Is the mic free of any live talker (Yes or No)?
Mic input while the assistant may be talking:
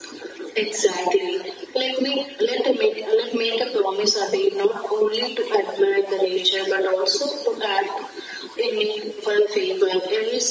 Yes